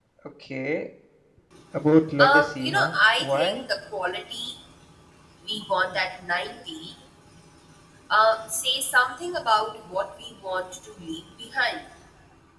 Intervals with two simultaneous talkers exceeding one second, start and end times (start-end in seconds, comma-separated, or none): 2.2-3.6